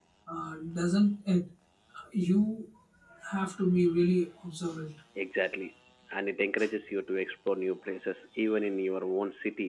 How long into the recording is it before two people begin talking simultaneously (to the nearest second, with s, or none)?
none